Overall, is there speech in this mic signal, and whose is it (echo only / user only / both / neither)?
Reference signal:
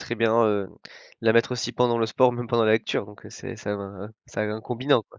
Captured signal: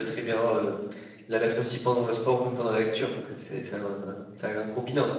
echo only